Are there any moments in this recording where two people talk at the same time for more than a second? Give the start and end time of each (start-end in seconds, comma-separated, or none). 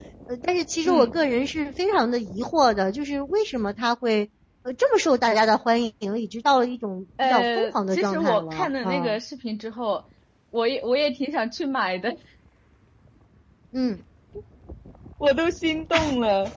7.2-9.2